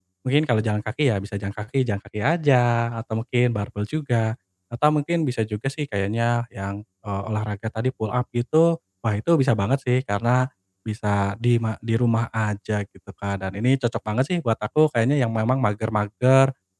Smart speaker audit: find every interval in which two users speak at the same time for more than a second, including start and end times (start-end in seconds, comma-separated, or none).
none